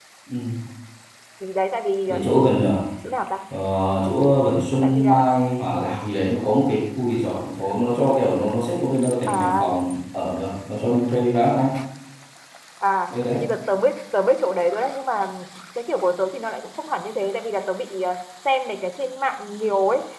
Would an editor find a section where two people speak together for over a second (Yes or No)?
No